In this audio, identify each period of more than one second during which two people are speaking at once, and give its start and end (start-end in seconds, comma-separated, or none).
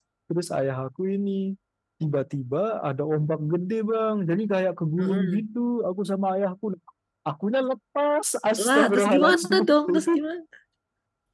8.7-10.1